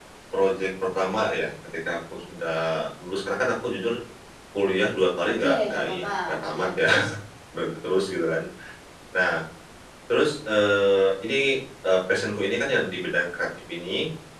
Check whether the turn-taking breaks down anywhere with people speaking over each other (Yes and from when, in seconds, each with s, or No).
Yes, from 5.2 s